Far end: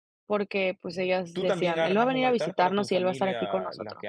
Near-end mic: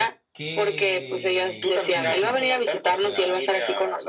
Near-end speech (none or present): present